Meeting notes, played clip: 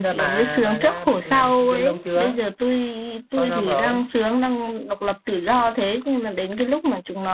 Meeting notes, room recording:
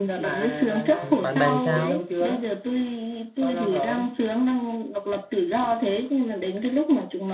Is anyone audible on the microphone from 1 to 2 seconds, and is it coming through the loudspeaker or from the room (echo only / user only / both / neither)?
both